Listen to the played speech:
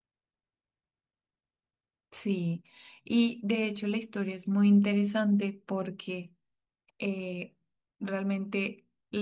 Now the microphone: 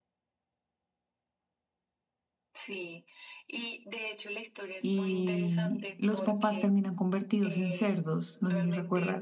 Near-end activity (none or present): present